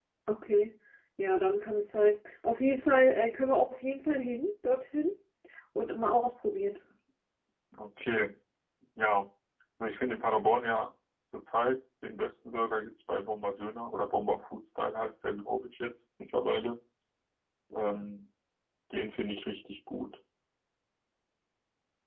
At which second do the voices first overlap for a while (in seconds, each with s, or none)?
none